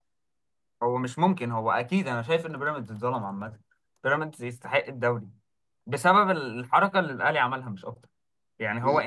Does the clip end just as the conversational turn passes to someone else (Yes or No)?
No